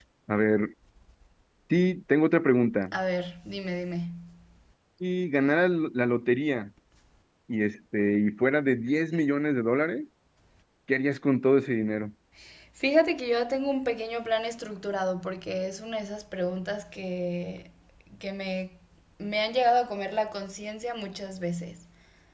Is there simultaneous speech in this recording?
No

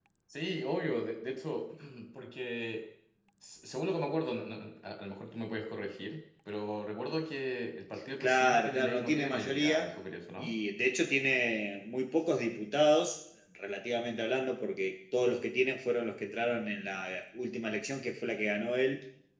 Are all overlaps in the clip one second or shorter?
No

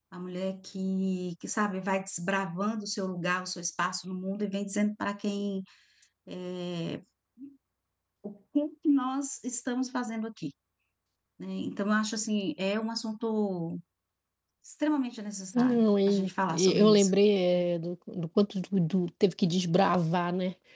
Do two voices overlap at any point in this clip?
Yes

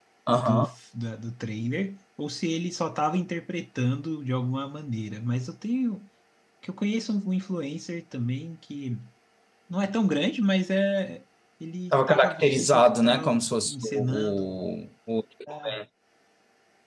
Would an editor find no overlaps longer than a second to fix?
No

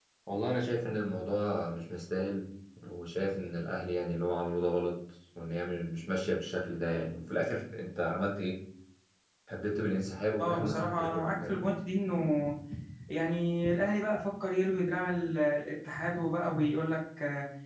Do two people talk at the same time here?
Yes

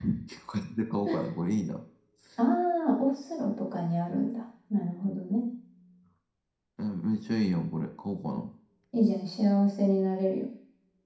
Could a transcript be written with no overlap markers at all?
Yes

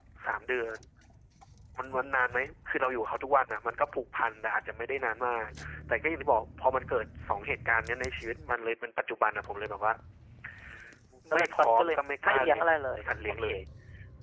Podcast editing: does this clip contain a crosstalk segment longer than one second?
Yes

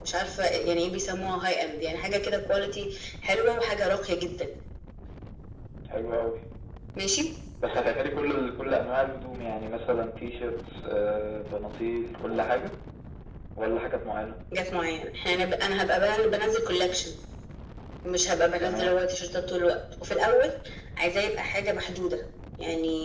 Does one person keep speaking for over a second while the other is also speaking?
No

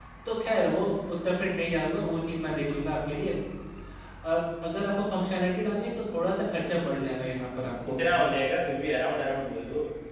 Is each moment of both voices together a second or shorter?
Yes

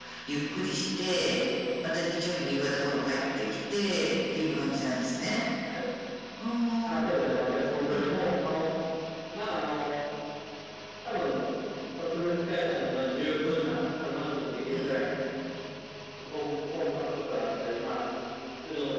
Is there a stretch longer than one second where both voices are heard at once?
No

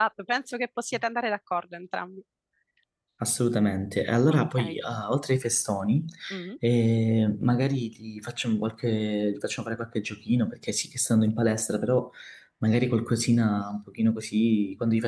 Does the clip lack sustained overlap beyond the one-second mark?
Yes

